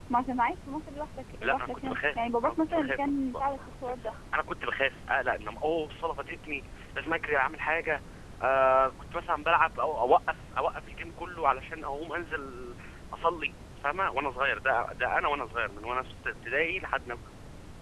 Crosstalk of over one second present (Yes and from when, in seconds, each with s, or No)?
Yes, from 1.4 s